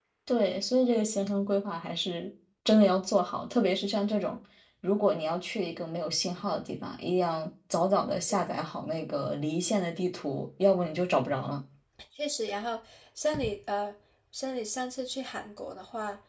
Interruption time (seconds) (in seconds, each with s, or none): none